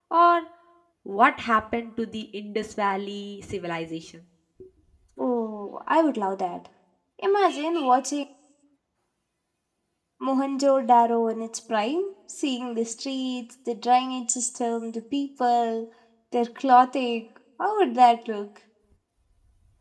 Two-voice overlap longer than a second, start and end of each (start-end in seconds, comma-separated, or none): none